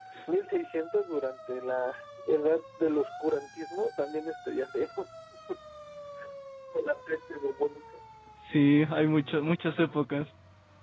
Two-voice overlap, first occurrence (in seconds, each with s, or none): none